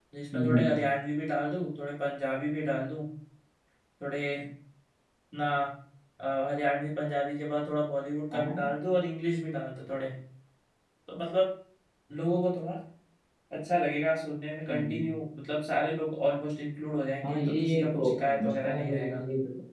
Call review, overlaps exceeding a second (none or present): present